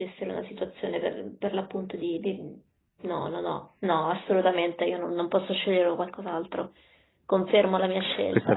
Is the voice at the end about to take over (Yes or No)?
Yes